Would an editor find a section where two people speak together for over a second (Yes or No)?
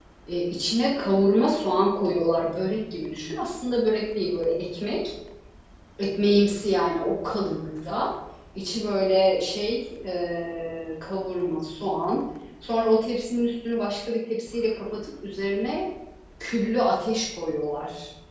No